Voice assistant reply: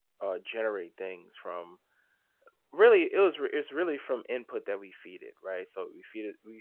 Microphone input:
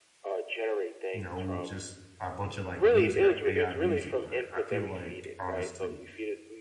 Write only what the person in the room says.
you know, just a bunch of like music, like AI music. But I feel like honestly,

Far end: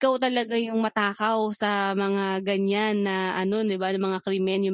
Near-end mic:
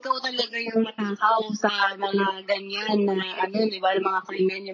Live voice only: none

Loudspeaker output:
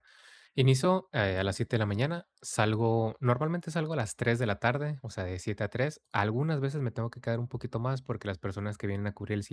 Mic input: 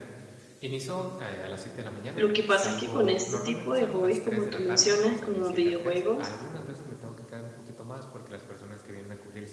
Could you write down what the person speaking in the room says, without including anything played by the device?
Lo que pasa es que con este tipo de hobbies, como tú mencionas, como videojuegos,

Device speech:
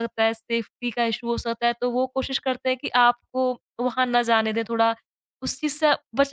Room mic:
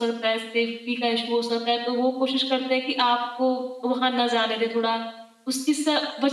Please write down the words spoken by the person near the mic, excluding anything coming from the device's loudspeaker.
none

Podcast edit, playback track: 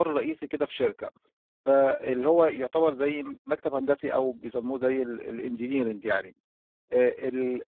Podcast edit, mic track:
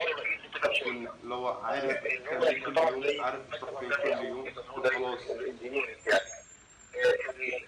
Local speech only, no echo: هتكون اللي هو عارف بتعمل إيه كل يوم، عارف بتروح فين كل يوم، هتكون خلاص

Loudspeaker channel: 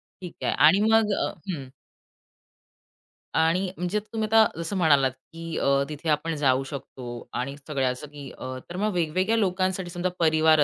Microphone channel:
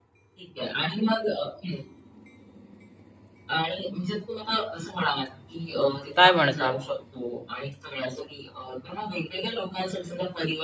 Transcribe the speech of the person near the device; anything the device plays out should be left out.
काय म्हणता?

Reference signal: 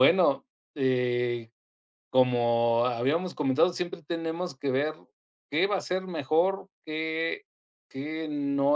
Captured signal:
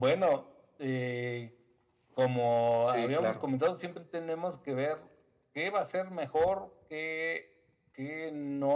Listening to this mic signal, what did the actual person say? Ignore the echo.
sí, claro.

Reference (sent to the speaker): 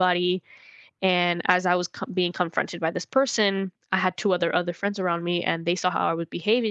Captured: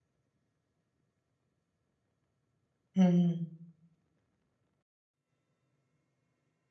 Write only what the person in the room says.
Mm.

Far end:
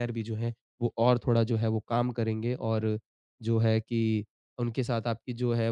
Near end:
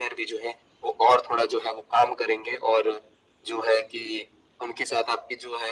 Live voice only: none

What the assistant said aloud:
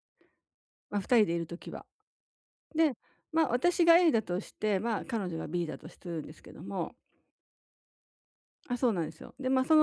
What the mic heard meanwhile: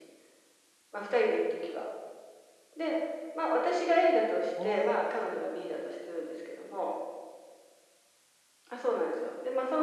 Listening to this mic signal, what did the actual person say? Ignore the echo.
ああ、

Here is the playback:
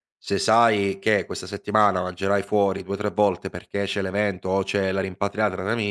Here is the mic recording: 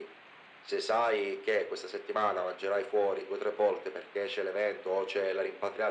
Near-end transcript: none

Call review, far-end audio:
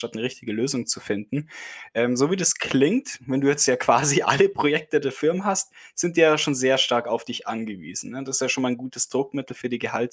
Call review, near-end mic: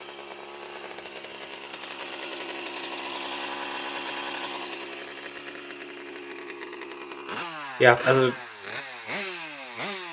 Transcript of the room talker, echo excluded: Ja, also,

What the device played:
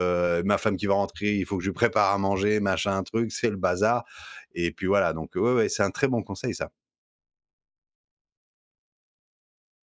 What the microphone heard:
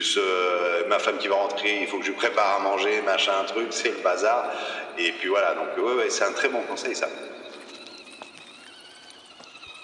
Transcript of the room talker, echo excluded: none

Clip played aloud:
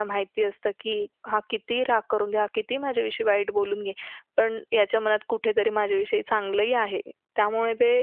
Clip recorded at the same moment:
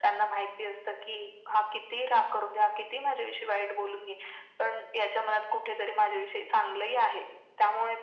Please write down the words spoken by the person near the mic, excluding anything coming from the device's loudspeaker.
none

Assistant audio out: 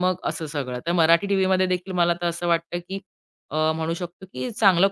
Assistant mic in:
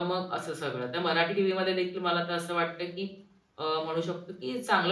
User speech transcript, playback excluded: none

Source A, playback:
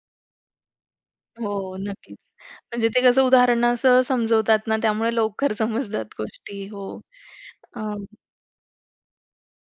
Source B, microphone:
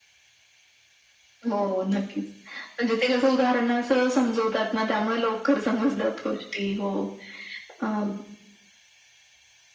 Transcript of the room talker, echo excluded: none

